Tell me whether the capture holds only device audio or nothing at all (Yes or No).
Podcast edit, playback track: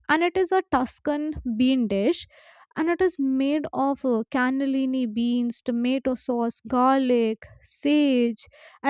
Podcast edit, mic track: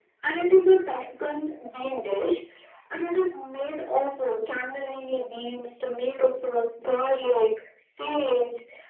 Yes